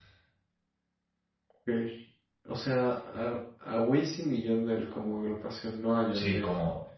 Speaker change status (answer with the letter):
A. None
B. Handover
B